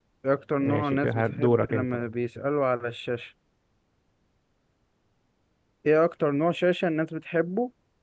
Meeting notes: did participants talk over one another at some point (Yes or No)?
Yes